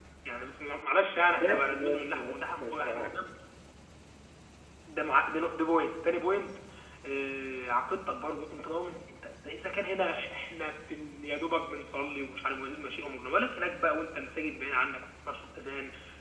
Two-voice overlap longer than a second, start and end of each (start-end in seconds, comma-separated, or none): 1.4-3.1